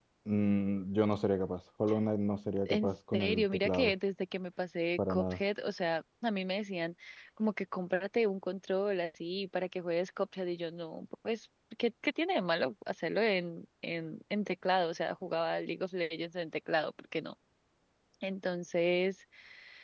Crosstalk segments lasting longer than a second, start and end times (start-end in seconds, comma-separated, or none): 2.7-3.9